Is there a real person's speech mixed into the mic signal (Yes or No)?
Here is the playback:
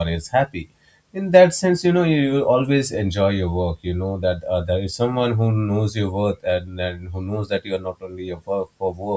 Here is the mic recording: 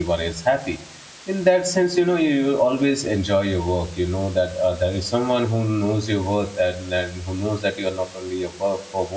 No